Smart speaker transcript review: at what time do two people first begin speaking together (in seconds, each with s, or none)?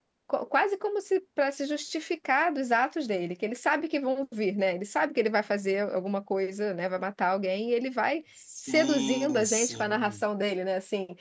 8.6 s